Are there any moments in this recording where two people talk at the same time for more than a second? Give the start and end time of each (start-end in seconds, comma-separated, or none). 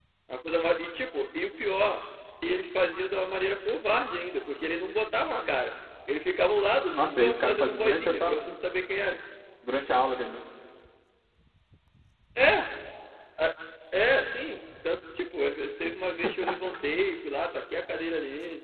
6.9-8.4